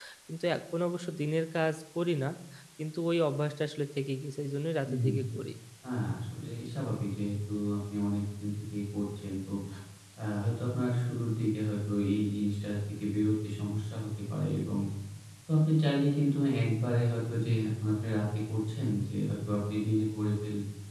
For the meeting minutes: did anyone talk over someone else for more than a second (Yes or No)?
No